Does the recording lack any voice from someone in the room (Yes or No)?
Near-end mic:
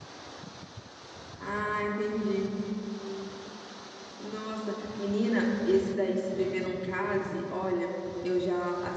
No